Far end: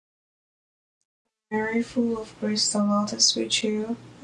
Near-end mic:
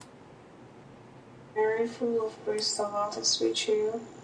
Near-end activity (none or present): none